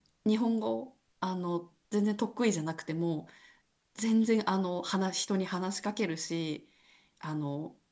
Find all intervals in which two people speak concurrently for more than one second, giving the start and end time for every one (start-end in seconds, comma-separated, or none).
none